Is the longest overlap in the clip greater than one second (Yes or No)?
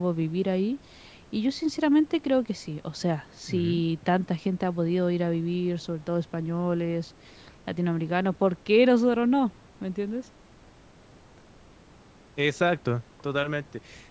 No